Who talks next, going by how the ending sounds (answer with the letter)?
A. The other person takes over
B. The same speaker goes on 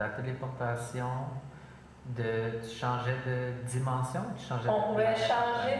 A